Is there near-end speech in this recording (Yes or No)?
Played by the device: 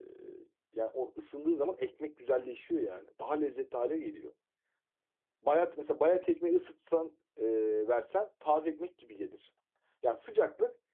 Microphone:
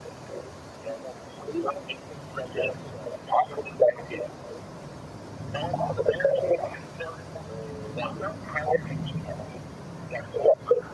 No